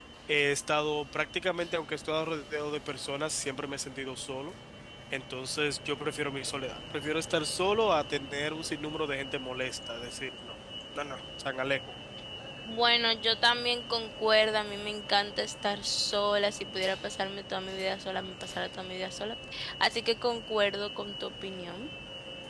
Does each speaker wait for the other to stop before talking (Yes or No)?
Yes